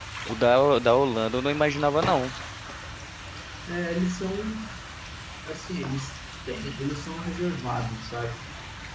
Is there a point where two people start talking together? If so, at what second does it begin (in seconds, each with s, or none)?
none